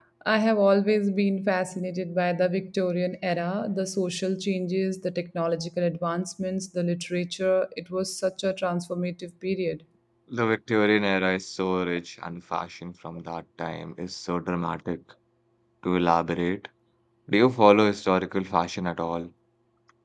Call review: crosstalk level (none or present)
none